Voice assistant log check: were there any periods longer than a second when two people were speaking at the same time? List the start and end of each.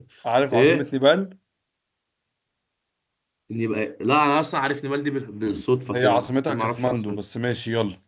5.9-7.2

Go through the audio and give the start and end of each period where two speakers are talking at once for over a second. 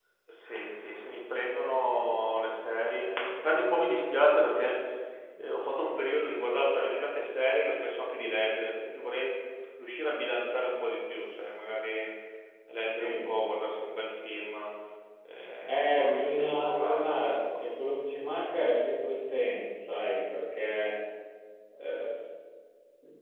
15.7-17.6

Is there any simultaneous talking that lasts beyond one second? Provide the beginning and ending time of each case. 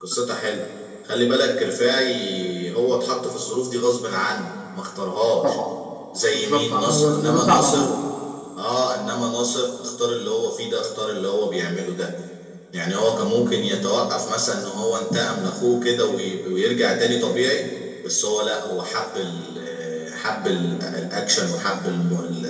6.3-8.0

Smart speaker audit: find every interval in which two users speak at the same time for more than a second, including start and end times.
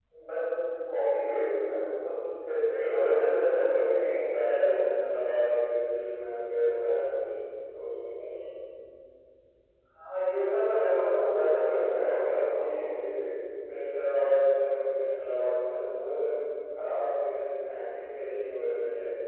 2.9-4.8, 11.6-12.9

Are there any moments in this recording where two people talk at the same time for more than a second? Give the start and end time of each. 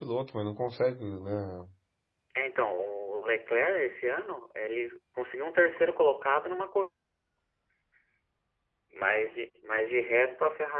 none

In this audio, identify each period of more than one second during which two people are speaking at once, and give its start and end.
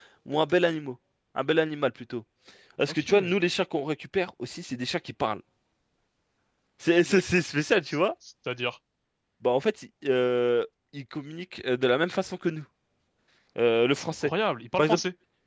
none

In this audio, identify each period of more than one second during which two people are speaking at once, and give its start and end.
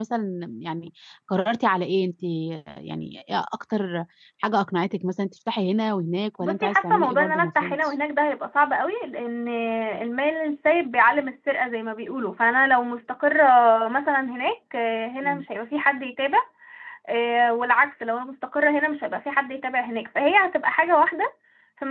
6.4-7.9

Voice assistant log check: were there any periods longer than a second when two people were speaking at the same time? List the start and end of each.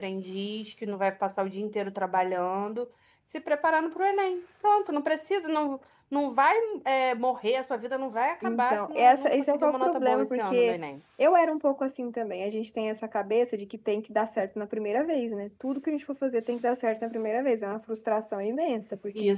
8.4-10.8

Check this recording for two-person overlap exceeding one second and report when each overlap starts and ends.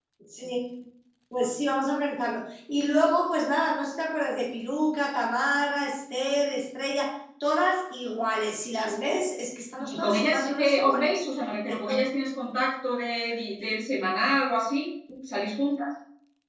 9.8-11.2

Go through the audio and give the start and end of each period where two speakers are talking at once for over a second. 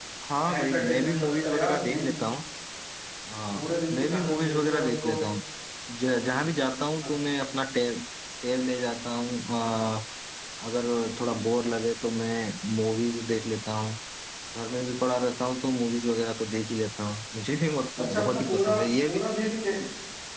0.5-2.1, 3.5-5.1, 18.0-19.3

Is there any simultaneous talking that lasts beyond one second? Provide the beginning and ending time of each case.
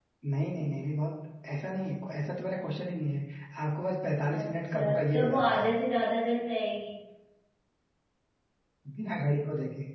4.3-5.7

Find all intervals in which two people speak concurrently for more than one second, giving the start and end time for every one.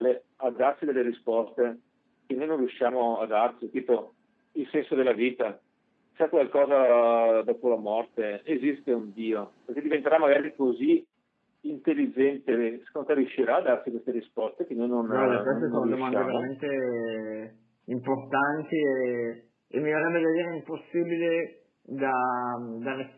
15.1-16.5

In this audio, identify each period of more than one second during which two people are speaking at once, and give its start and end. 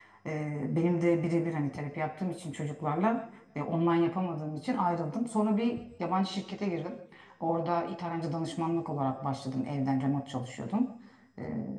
none

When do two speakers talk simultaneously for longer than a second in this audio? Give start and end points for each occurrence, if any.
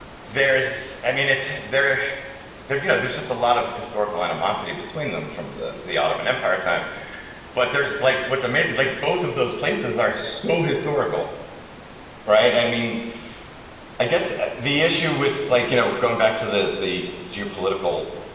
none

